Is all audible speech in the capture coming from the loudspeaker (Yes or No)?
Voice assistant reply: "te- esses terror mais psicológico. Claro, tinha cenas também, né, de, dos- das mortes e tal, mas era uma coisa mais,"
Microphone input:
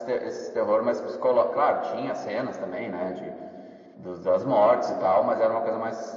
Yes